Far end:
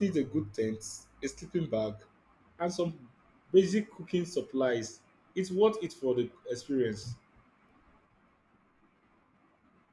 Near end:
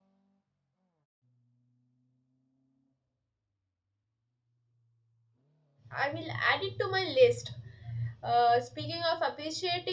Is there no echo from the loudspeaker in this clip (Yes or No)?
Yes